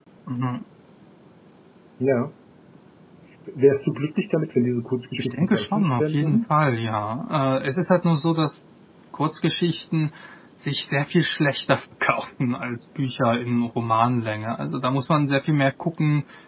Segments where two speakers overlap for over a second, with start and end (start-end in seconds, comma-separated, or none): 5.2-6.4